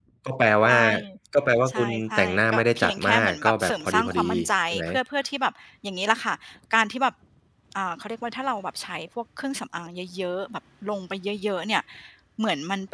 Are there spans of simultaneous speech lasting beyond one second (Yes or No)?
Yes